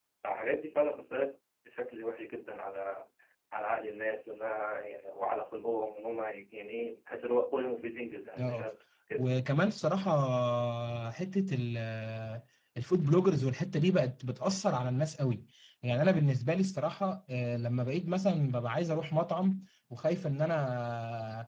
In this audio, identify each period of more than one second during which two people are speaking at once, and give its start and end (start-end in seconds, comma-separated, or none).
none